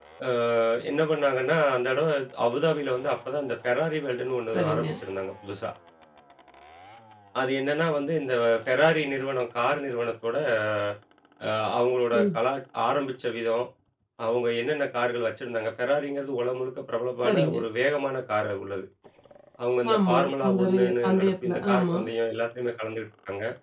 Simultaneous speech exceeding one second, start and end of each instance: 19.9-22.0

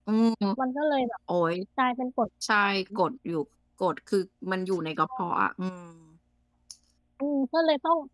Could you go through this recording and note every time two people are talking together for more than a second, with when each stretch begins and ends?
none

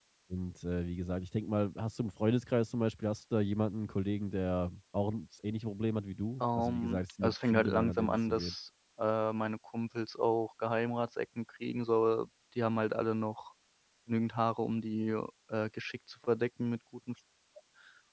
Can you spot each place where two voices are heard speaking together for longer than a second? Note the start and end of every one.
6.4-8.5

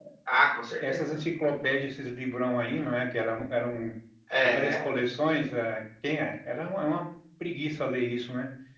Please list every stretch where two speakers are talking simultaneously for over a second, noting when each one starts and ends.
none

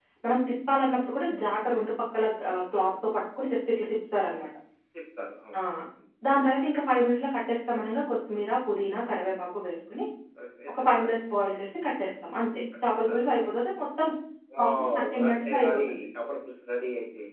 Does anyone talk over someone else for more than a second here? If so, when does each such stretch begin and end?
14.6-16.0

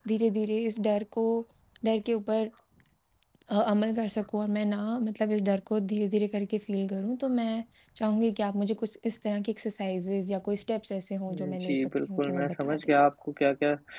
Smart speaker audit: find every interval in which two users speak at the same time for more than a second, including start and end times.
11.3-12.9

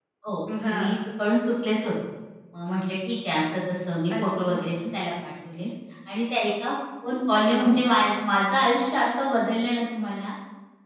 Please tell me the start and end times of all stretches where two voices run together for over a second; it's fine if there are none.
none

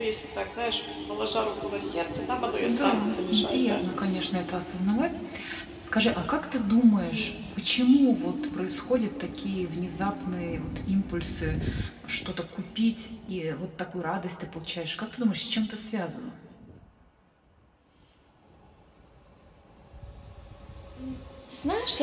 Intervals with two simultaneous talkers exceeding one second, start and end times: 2.6-3.8

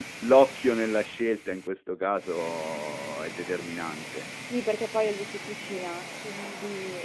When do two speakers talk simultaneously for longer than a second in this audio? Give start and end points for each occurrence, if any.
none

